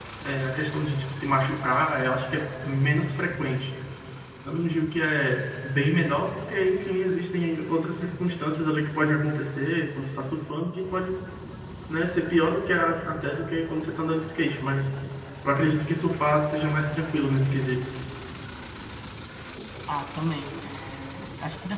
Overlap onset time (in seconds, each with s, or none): none